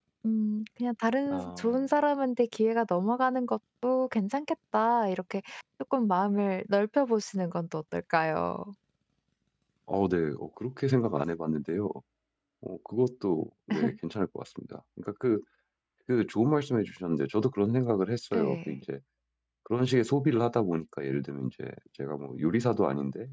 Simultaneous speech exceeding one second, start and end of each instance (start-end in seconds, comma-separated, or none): none